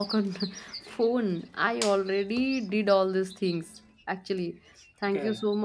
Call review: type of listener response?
listening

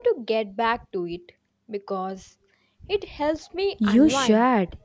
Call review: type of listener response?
taking over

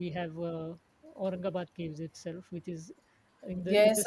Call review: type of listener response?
taking over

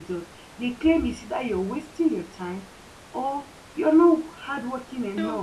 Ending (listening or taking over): taking over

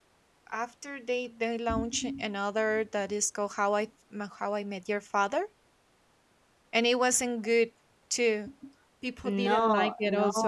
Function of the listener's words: taking over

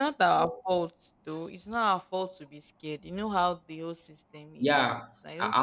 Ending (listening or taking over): taking over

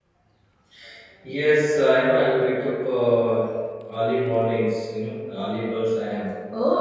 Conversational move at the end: taking over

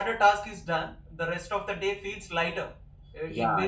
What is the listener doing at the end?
listening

